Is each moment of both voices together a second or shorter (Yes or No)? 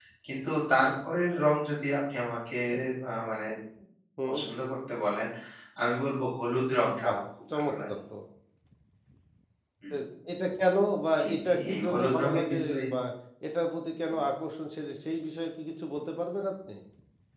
No